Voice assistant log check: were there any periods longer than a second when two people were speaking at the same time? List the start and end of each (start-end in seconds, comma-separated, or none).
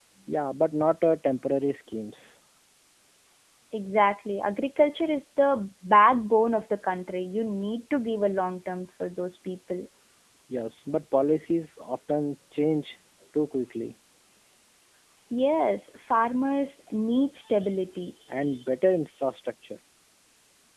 none